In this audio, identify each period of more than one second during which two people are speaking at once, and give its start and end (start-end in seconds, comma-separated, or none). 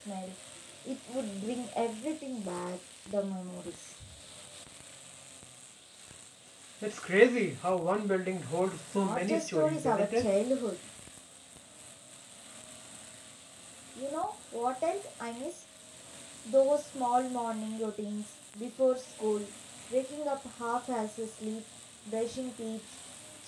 8.9-10.3